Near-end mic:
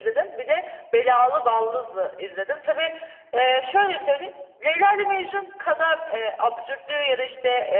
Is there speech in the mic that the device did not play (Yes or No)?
No